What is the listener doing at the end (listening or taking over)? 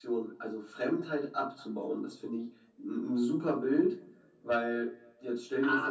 taking over